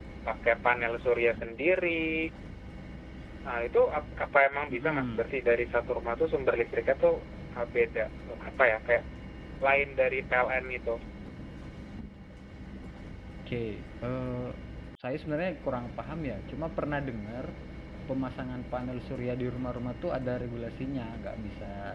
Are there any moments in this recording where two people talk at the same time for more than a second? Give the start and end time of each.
none

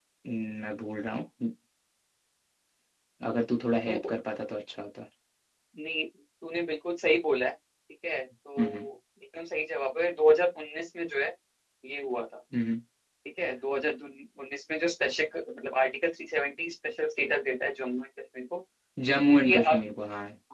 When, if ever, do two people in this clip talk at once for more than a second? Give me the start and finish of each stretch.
none

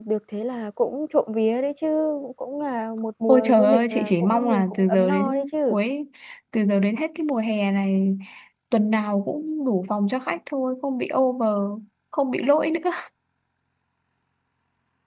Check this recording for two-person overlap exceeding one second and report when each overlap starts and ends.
3.3-5.8

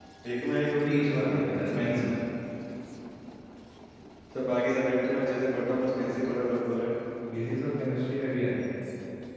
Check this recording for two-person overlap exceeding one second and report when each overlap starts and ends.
0.8-2.1

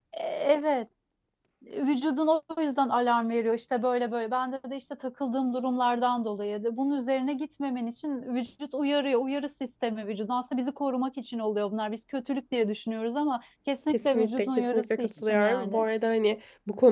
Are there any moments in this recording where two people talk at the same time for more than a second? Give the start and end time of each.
13.9-15.9

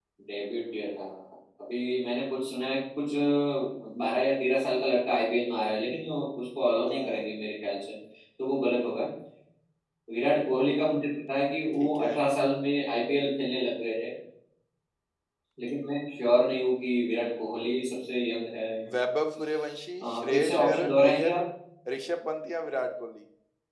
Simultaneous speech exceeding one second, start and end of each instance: 20.0-21.3

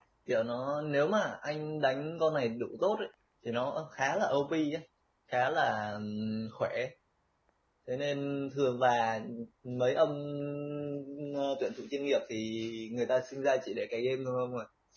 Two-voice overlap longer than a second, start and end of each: none

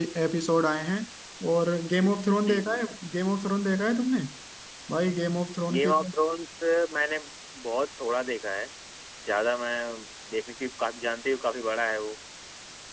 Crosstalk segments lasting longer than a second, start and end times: none

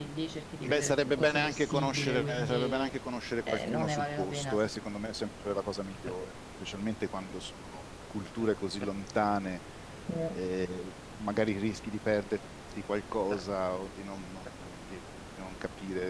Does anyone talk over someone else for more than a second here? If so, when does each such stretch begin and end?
0.7-2.9, 3.5-4.7

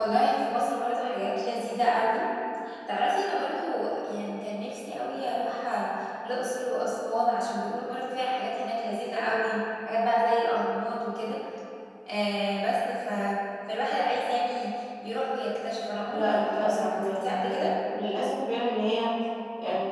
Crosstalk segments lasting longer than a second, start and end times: 16.1-17.7

